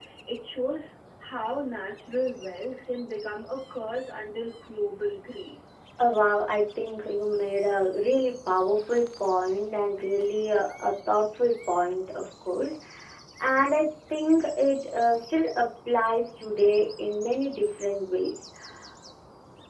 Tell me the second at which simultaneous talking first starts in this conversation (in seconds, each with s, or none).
none